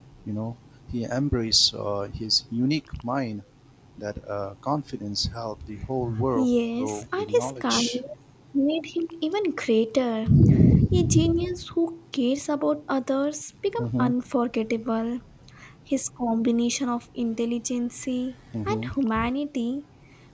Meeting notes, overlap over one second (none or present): present